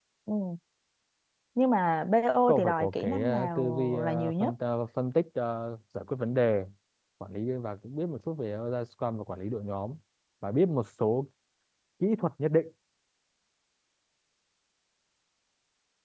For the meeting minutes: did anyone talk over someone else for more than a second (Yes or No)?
Yes